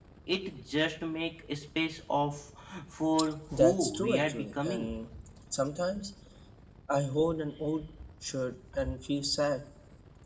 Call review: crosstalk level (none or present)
present